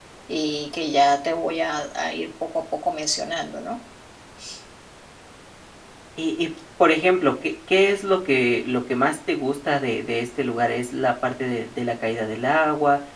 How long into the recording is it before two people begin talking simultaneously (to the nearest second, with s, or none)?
none